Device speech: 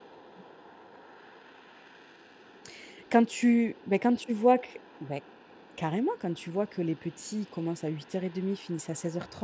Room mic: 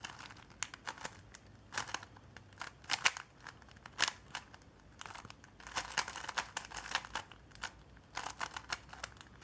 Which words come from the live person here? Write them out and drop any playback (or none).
none